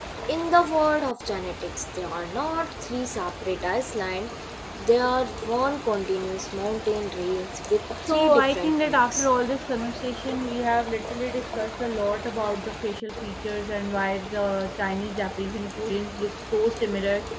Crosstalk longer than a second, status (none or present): present